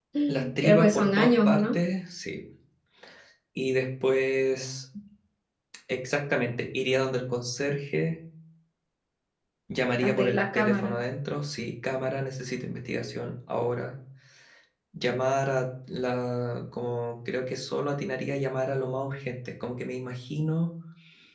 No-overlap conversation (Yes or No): No